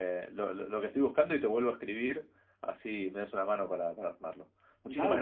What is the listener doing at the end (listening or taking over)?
taking over